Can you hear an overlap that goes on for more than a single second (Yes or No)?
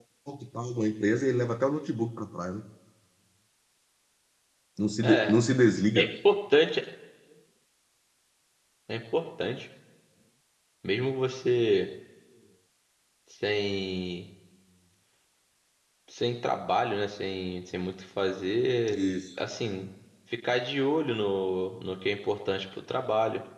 No